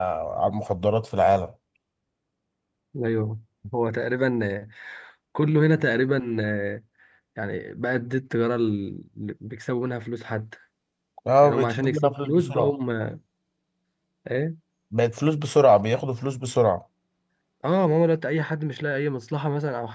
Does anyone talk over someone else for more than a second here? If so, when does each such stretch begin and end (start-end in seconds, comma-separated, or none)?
11.4-12.7